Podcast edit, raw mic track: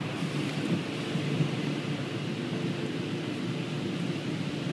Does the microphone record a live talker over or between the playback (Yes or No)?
No